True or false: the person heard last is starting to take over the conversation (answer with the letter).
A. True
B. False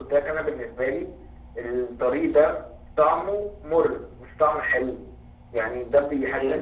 B